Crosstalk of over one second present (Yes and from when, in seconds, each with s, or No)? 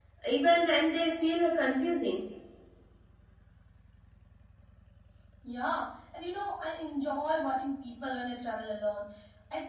No